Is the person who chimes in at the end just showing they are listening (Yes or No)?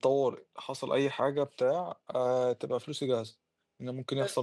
Yes